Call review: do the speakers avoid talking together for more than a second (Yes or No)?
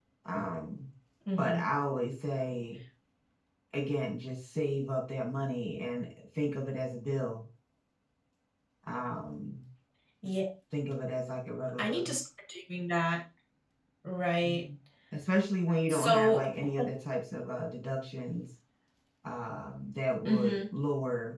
Yes